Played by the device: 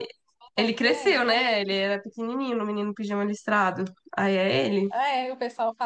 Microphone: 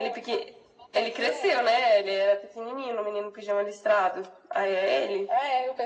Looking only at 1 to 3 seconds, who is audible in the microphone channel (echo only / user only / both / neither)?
echo only